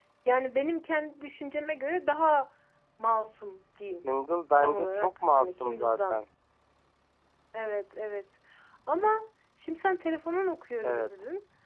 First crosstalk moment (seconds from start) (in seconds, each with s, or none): 4.6 s